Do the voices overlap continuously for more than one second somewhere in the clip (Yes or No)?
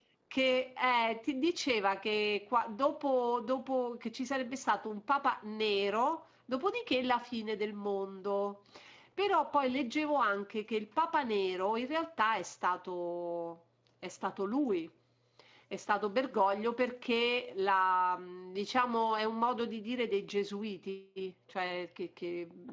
No